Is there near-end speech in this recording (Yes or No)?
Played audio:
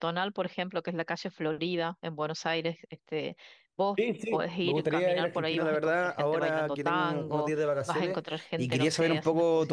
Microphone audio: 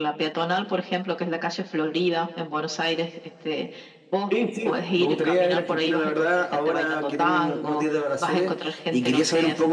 No